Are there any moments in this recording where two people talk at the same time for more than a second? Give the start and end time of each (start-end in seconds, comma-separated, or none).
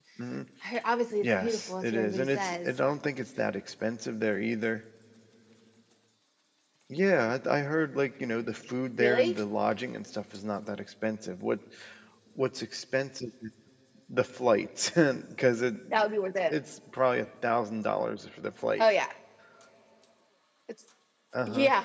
1.2-2.7